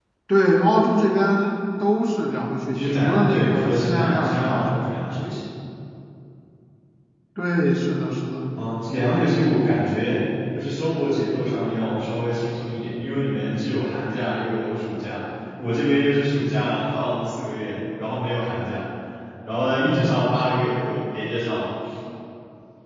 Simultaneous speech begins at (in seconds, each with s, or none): 2.7 s